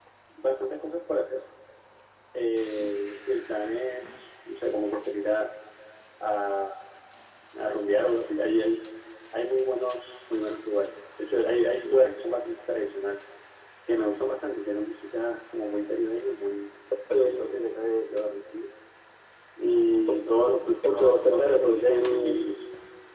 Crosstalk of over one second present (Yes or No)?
Yes